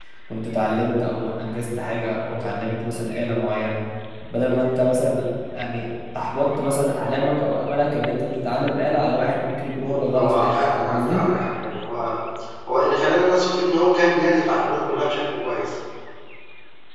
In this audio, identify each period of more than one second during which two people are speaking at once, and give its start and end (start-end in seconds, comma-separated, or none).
9.8-11.2